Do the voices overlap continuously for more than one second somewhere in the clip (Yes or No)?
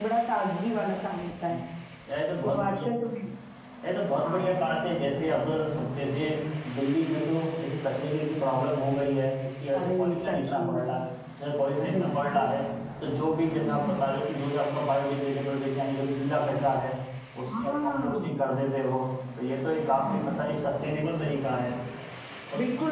Yes